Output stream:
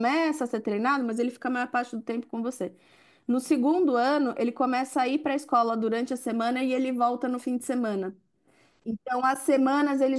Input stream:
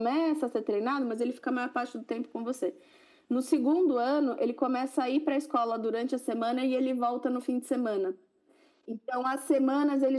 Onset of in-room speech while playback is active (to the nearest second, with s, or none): none